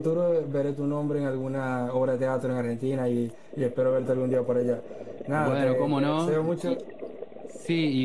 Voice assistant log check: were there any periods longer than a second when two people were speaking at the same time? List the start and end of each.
5.4-6.7

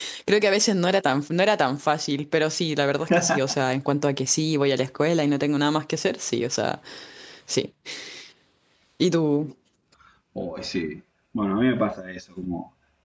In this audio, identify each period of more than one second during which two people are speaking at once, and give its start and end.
none

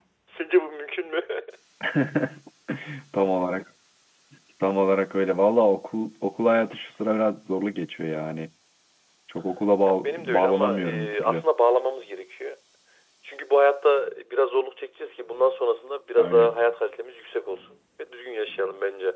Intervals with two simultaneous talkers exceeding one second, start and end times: 9.9-11.4

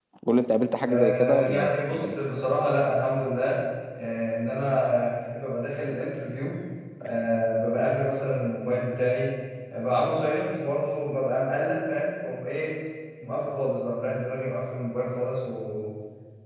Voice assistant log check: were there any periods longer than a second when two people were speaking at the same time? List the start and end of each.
0.9-2.2

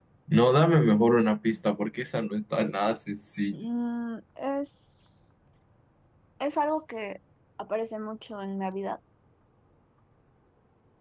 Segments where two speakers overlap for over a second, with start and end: none

